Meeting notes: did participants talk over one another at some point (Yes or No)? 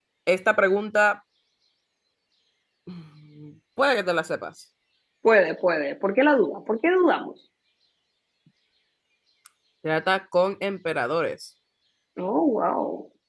No